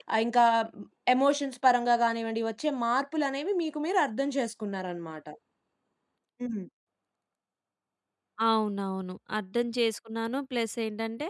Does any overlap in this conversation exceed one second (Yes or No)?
No